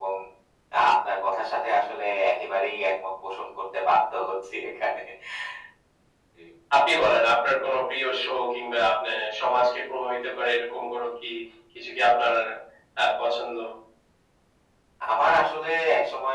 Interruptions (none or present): none